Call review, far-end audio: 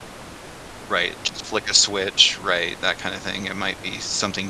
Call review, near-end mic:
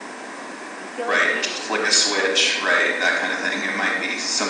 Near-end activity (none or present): present